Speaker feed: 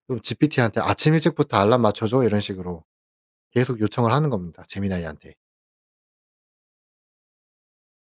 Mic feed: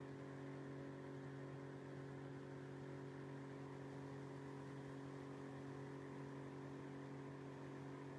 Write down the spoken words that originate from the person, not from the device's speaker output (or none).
none